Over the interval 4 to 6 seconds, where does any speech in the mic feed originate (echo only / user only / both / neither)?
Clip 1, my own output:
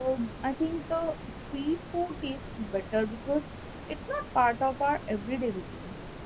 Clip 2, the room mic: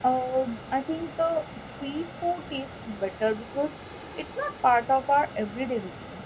echo only